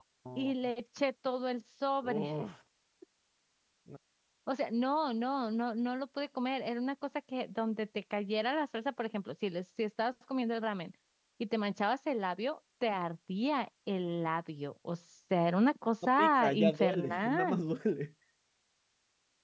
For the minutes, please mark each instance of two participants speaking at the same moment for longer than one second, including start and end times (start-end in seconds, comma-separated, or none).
16.2-17.6